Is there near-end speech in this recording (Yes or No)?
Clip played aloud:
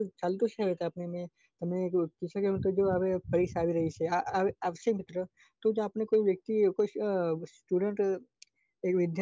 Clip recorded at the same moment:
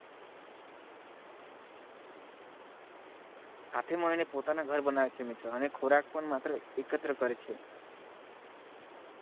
Yes